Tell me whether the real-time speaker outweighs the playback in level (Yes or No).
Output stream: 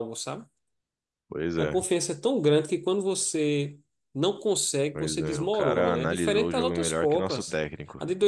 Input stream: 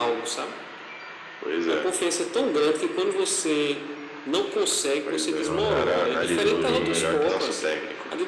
No